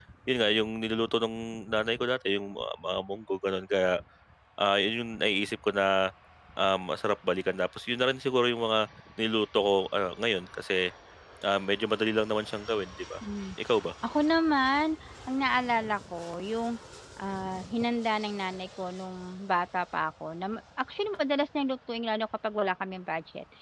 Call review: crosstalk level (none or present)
none